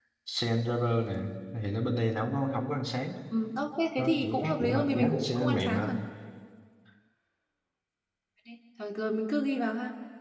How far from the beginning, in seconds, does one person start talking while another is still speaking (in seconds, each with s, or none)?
4.0 s